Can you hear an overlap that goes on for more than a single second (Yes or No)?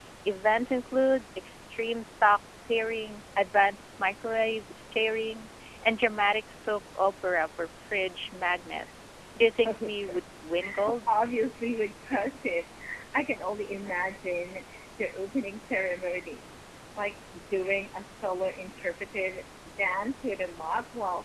No